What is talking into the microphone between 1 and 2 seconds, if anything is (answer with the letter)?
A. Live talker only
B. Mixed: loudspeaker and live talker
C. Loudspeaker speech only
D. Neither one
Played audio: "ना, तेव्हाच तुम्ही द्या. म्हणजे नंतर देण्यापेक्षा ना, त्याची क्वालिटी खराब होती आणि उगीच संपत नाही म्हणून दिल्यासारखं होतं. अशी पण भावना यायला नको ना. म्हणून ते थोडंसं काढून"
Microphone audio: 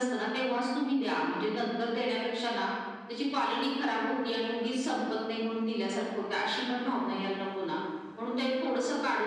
C